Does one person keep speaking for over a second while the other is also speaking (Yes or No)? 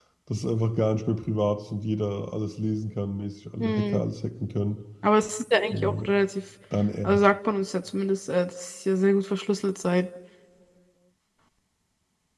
No